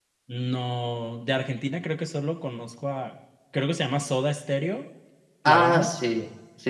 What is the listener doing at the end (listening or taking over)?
taking over